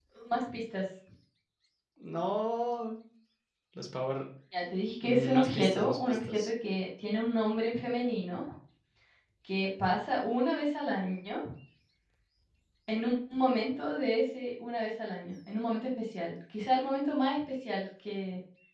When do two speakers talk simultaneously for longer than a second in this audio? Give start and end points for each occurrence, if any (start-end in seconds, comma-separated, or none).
5.0-6.5